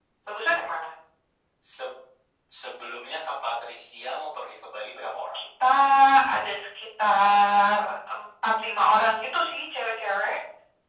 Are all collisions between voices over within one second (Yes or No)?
Yes